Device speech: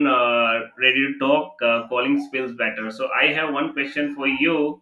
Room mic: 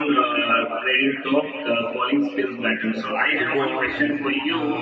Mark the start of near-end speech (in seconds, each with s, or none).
3.4 s